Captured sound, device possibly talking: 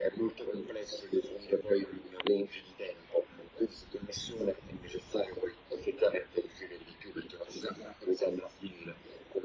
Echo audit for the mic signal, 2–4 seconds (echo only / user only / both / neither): echo only